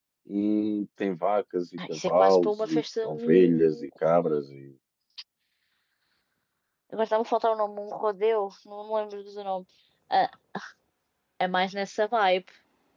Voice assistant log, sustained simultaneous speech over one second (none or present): present